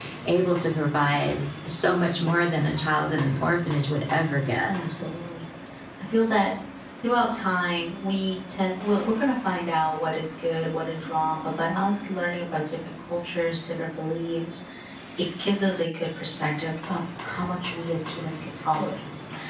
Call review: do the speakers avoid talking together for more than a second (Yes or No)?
Yes